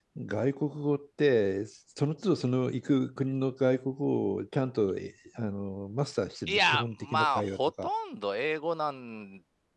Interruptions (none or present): present